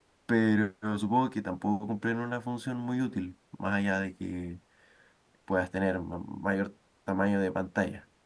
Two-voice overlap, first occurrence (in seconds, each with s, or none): none